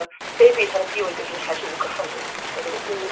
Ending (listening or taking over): taking over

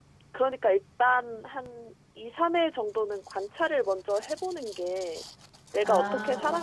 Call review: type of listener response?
listening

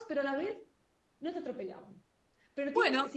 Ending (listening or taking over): listening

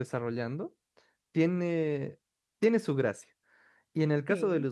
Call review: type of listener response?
listening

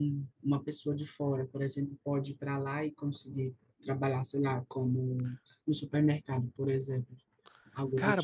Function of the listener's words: taking over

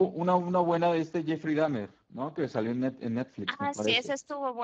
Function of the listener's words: taking over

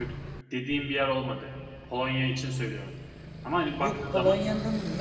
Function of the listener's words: taking over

